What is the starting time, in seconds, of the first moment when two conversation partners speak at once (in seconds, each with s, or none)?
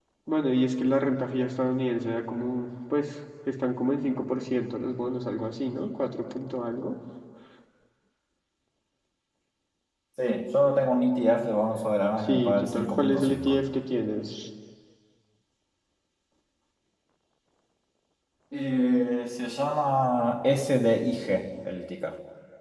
12.2 s